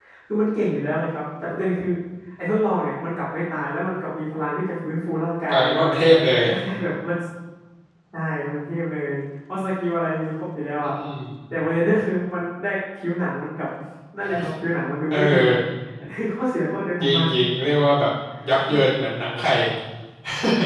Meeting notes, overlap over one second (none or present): none